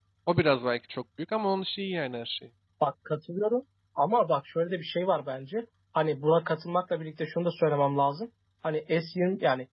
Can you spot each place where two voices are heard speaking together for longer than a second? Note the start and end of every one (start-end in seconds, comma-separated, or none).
none